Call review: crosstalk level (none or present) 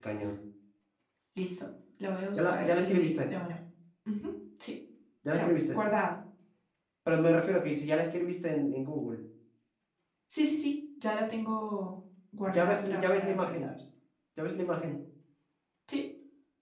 present